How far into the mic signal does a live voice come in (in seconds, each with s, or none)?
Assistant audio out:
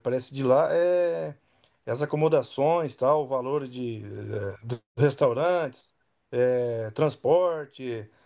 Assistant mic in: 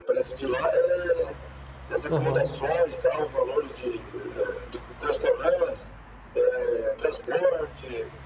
2.1 s